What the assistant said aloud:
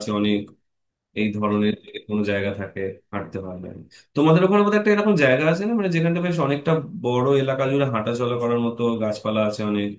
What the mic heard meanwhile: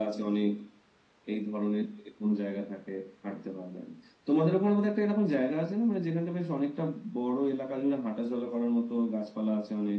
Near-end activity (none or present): none